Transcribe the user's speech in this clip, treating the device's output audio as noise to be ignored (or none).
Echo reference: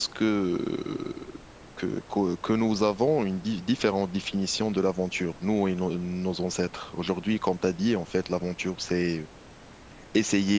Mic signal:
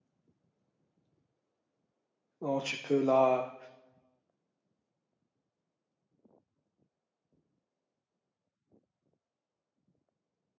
donc tu peux la...